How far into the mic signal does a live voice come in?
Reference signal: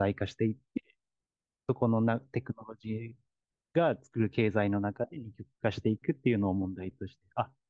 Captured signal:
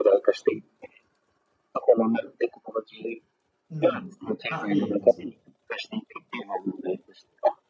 3.7 s

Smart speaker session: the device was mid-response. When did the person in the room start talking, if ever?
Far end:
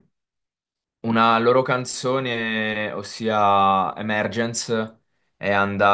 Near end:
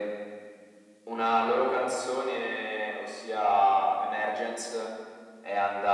none

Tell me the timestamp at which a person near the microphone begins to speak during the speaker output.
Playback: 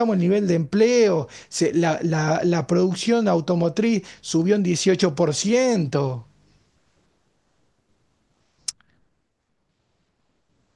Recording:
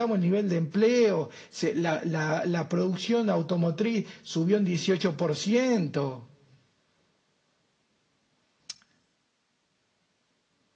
none

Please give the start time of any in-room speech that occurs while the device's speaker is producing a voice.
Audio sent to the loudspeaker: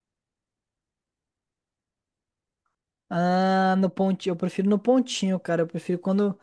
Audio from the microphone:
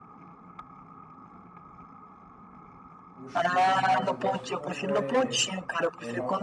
3.1 s

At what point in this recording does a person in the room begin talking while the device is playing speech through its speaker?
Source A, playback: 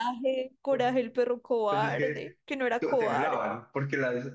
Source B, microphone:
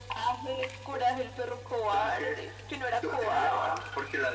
none

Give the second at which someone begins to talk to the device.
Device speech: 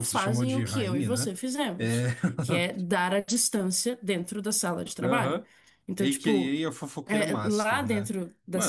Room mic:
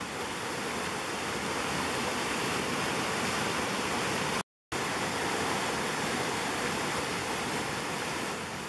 none

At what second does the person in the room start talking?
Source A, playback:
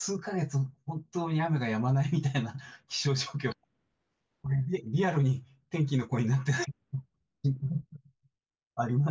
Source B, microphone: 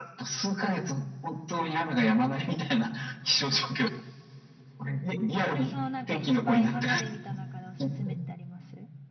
5.5 s

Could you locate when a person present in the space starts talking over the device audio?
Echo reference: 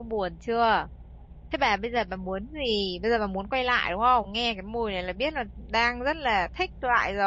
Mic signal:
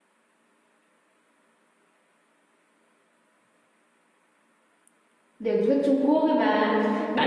5.4 s

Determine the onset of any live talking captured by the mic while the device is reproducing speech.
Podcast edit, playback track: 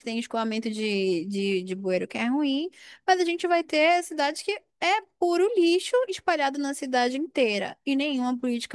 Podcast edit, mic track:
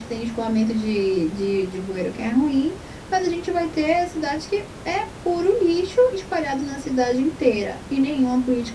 none

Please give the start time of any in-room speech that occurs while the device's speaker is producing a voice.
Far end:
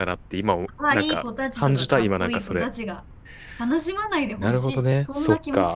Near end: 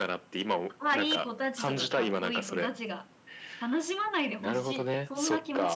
none

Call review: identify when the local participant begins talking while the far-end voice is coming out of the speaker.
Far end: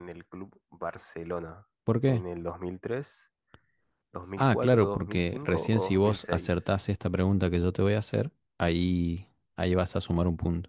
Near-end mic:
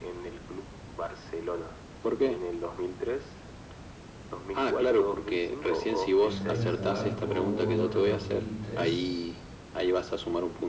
6.2 s

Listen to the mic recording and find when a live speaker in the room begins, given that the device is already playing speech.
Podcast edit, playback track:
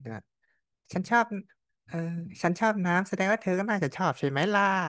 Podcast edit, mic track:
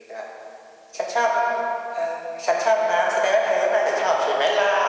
none

